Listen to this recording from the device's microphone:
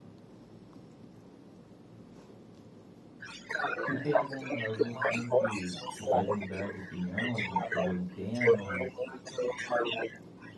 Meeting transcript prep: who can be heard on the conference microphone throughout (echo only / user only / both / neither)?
both